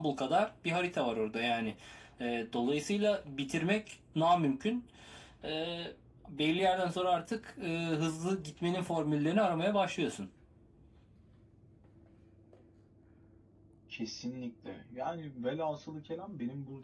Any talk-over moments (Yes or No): No